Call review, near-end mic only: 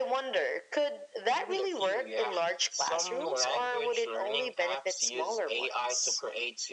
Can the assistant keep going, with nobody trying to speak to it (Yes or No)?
Yes